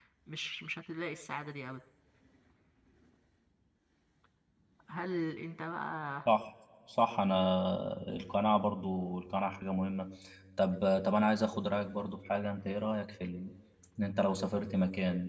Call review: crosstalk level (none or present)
none